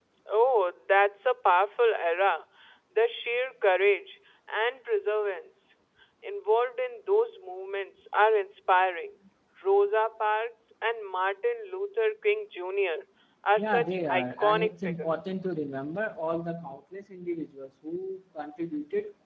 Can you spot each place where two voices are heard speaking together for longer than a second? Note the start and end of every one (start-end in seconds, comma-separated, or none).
13.6-15.2